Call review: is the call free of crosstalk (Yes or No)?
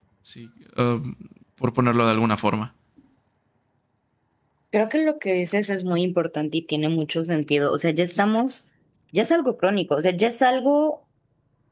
Yes